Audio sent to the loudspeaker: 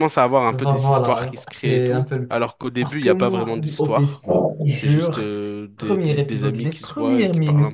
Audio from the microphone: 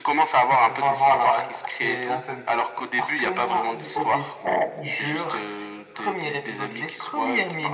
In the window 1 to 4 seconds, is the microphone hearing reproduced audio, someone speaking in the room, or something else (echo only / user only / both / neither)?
echo only